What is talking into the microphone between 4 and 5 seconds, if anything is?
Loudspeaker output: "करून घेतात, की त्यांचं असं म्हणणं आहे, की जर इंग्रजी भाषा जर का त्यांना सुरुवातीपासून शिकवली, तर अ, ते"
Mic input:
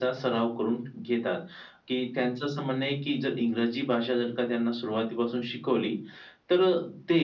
echo only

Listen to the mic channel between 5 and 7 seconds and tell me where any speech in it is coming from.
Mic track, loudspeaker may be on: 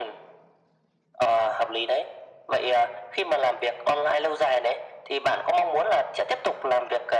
echo only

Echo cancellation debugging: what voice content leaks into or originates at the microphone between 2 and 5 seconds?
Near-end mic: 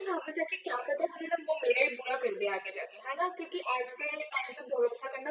echo only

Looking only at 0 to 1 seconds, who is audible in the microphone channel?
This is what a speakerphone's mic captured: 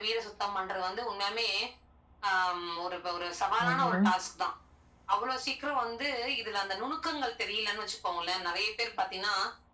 echo only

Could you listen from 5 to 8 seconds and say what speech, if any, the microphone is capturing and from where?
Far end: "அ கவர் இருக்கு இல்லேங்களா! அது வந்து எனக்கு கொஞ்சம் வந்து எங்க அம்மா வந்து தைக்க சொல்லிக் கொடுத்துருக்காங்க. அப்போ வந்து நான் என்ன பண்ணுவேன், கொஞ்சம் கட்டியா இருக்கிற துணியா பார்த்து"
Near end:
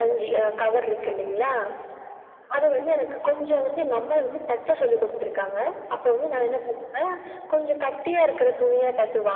echo only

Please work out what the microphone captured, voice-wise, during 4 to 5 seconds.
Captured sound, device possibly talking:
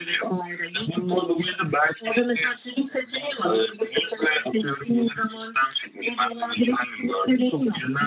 echo only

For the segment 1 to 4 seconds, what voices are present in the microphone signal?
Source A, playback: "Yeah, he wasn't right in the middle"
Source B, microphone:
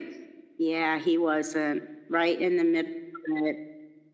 echo only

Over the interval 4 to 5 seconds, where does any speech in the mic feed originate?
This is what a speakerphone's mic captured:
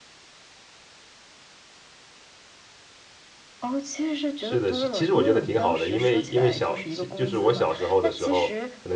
both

